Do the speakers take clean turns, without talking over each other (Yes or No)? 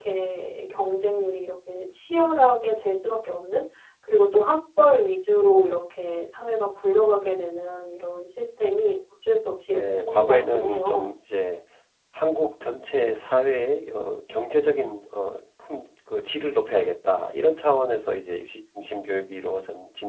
No